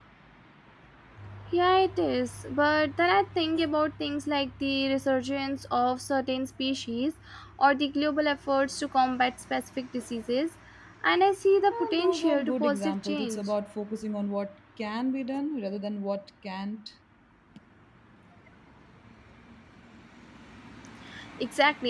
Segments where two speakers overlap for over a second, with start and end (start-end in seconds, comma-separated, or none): 11.7-13.5